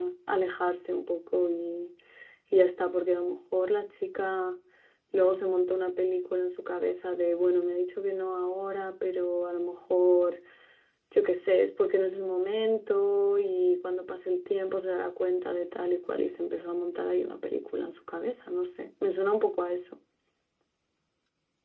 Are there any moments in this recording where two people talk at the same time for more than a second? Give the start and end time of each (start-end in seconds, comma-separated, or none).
none